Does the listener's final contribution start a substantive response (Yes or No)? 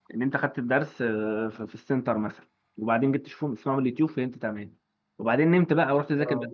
No